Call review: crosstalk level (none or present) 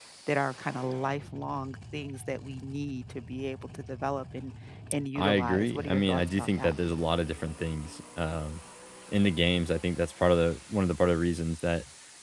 present